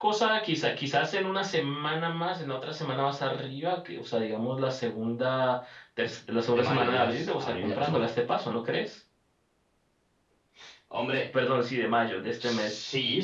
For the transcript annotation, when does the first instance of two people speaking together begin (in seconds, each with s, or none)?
6.5 s